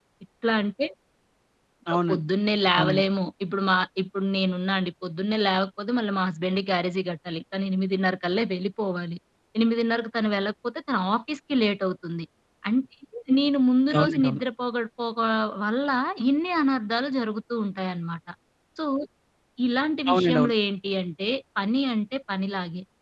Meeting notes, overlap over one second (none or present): none